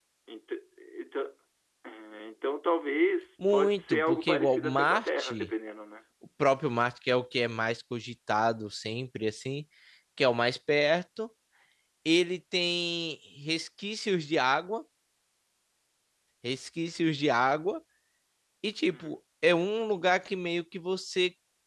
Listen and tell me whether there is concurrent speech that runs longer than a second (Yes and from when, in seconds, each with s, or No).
Yes, from 3.5 s